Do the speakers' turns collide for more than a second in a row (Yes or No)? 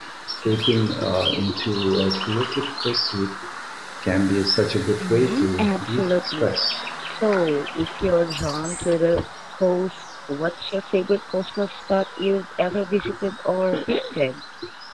Yes